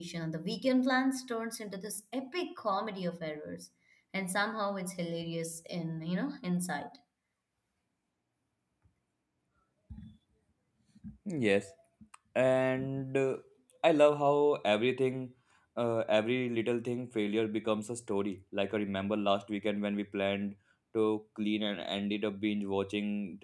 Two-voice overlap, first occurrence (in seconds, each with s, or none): none